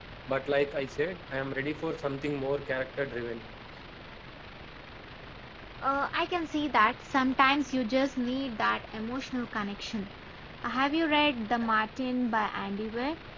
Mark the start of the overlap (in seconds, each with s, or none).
none